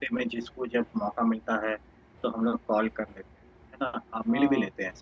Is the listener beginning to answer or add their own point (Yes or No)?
No